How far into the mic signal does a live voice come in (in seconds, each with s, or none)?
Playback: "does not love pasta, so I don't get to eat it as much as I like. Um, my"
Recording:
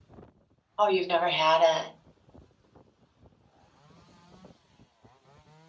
0.8 s